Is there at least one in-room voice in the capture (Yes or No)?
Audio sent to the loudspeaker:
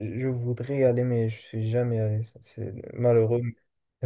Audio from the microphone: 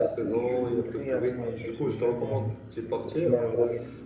Yes